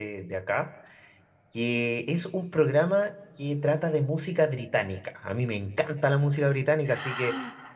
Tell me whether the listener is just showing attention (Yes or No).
Yes